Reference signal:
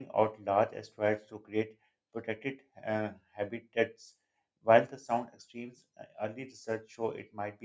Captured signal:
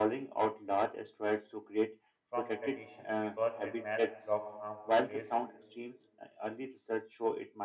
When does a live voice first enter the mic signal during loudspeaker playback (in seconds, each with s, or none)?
2.3 s